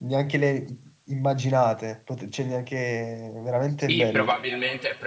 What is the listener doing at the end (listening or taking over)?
taking over